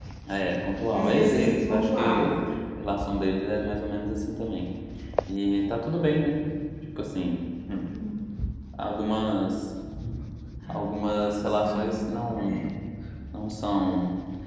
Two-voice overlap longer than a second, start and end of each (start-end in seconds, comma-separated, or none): 0.9-2.3